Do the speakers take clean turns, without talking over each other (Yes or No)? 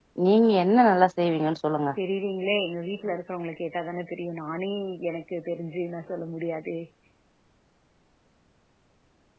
Yes